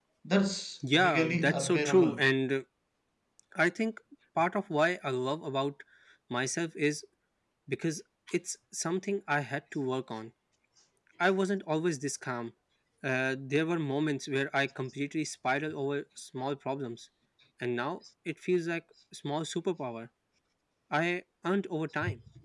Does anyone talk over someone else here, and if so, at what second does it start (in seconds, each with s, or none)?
0.9 s